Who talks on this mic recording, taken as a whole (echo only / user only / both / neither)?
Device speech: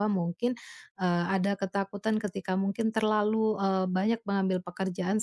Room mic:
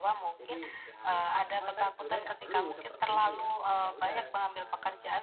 both